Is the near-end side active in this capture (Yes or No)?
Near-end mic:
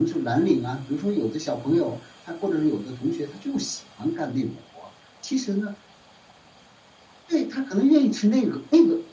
No